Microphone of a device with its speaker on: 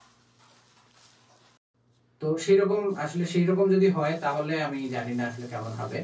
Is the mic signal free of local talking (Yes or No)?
No